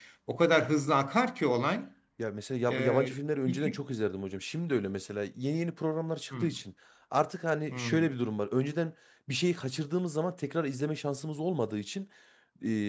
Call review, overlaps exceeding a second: none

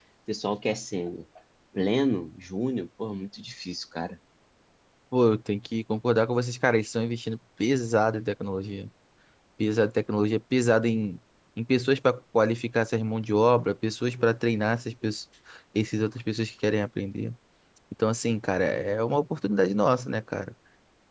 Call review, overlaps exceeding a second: none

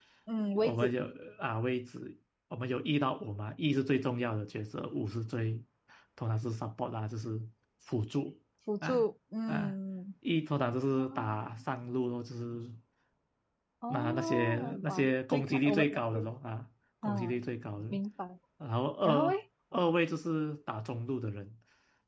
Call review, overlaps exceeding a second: present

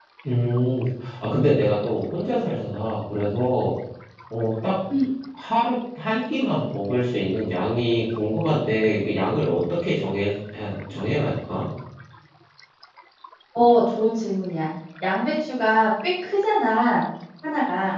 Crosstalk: none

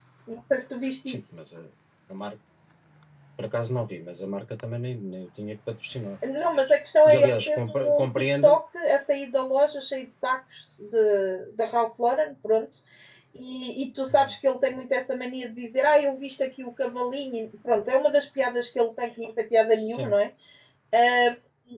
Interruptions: present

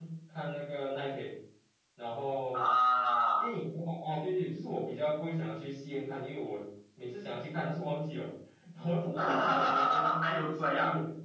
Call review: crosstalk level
present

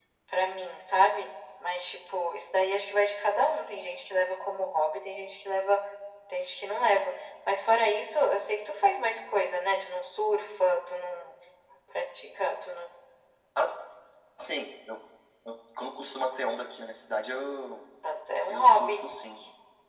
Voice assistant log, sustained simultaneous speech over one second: none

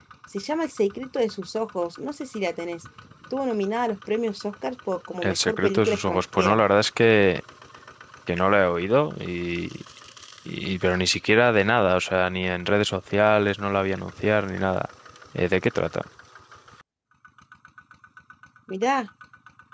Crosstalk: present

